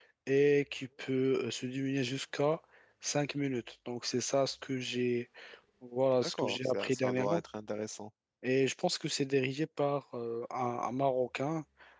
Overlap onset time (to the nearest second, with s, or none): 6 s